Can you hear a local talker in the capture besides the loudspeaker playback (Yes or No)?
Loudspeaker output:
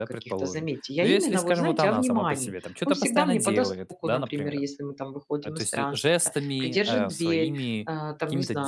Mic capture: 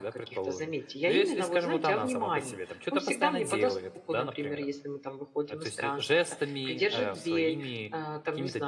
No